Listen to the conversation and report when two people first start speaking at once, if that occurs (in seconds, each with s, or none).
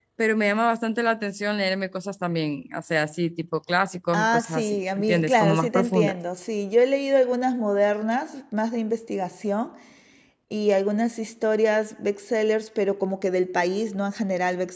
4.1 s